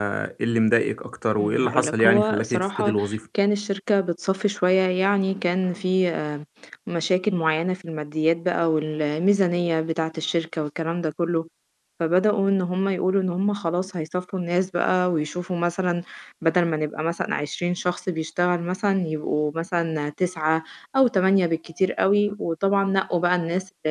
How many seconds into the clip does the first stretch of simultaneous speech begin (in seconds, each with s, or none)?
1.4 s